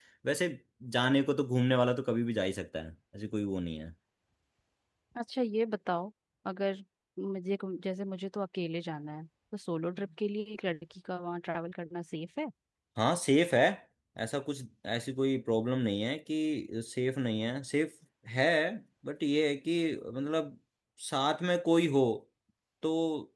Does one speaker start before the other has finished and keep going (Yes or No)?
No